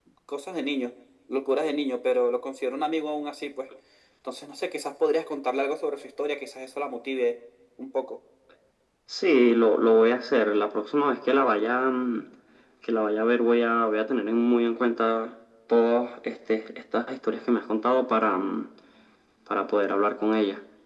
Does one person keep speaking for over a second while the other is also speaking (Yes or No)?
No